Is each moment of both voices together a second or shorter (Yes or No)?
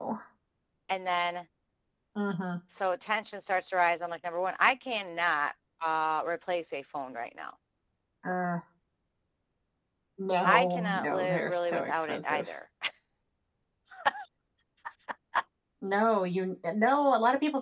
No